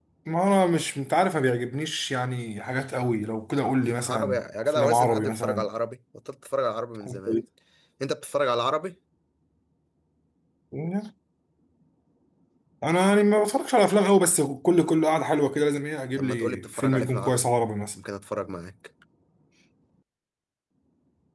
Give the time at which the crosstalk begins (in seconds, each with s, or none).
4.0 s